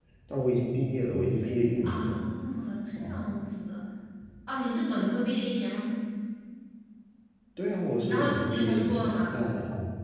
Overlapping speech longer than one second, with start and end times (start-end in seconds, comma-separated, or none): 8.1-9.4